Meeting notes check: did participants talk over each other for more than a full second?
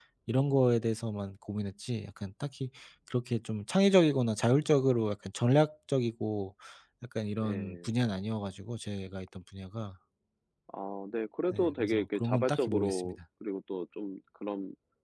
Yes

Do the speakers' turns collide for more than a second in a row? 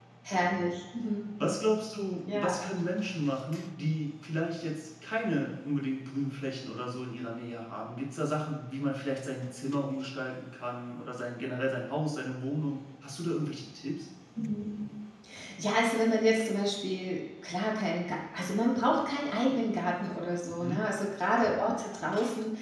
No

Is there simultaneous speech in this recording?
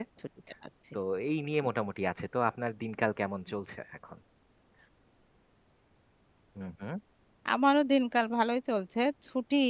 No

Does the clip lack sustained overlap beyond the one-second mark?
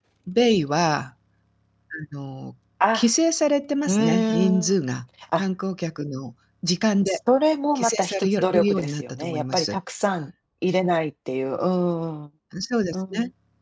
No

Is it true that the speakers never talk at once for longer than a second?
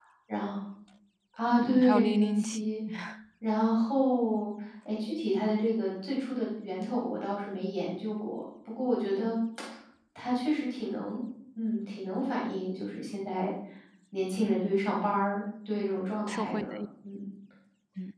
No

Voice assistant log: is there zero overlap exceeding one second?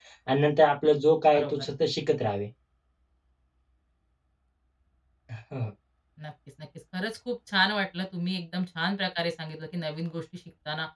Yes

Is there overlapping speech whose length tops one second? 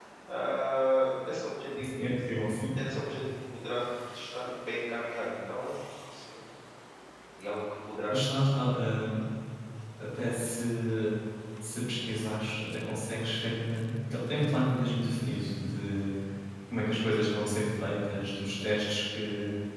No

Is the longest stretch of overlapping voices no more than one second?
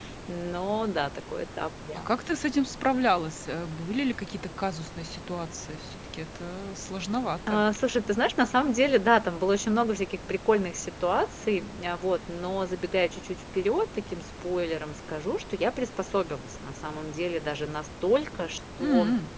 Yes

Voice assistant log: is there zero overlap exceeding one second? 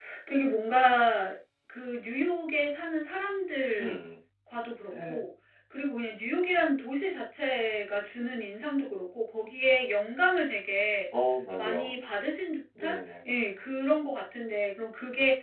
Yes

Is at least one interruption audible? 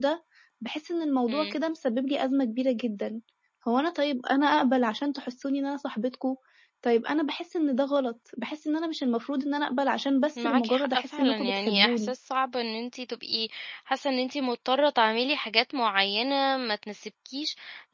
Yes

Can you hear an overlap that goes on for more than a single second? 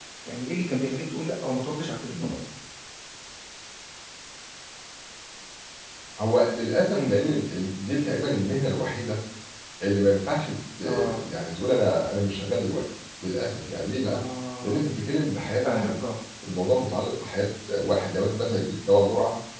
No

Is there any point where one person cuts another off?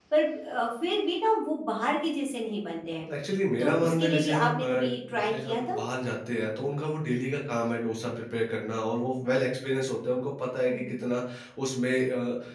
Yes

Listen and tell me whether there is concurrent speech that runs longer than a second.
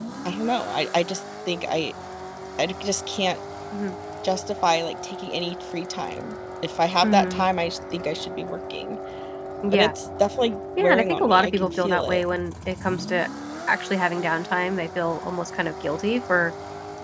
Yes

